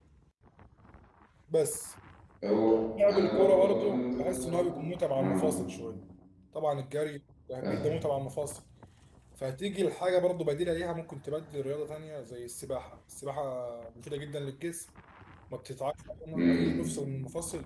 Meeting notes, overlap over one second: present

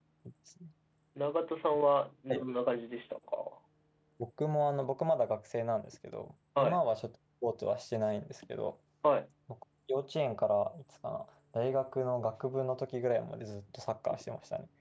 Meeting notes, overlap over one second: none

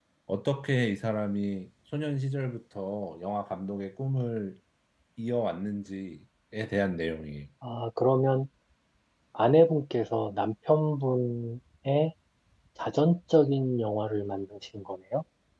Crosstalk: none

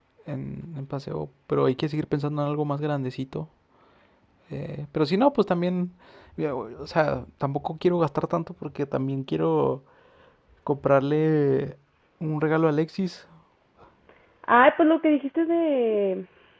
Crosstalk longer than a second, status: none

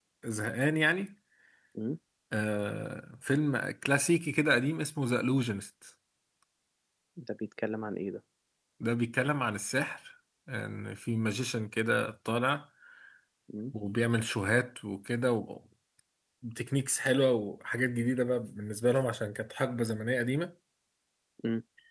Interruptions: none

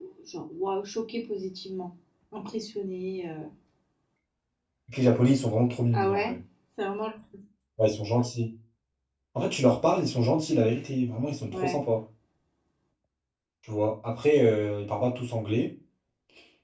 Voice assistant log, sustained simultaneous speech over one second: none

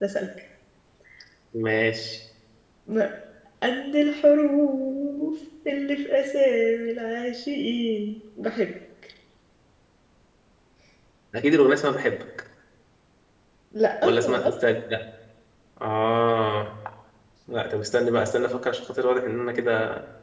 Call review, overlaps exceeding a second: none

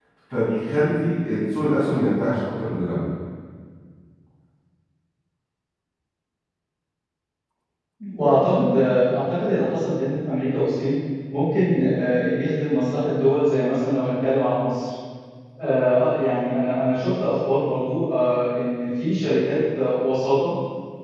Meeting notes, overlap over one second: none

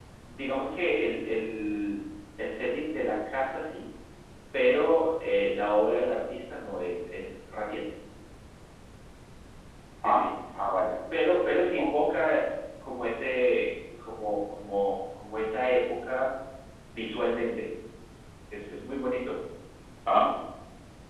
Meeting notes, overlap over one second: none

